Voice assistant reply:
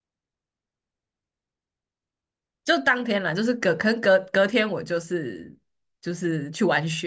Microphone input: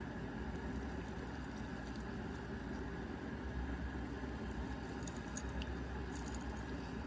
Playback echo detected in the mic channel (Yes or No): No